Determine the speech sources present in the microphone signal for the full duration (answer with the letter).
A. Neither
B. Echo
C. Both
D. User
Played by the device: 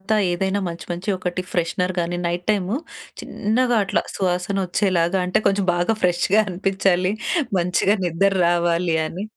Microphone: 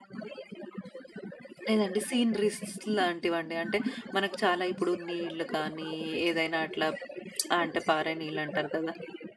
C